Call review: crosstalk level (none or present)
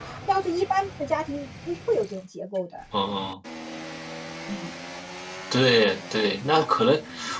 none